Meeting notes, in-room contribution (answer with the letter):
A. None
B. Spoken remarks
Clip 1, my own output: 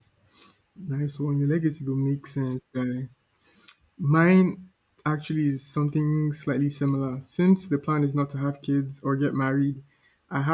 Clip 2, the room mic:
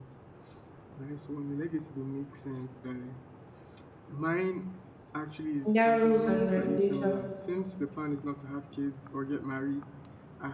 B